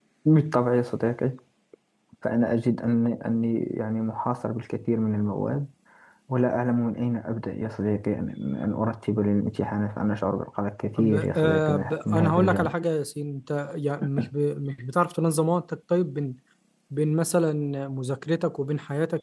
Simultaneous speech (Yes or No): Yes